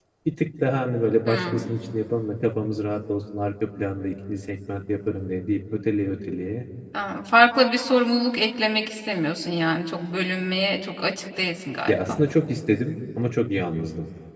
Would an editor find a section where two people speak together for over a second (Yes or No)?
No